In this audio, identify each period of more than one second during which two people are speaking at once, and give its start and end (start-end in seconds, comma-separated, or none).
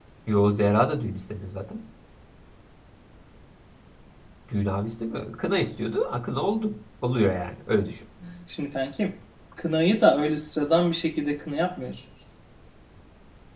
none